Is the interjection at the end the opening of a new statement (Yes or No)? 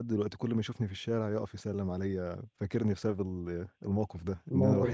No